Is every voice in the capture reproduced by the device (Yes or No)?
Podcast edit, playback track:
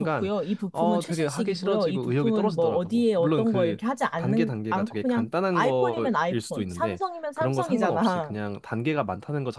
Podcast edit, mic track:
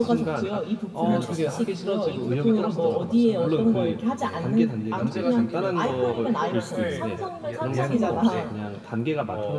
No